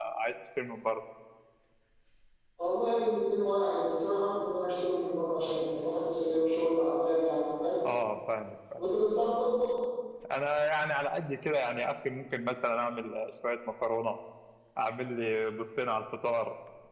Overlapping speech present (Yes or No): No